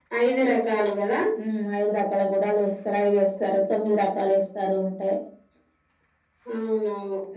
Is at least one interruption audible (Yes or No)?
No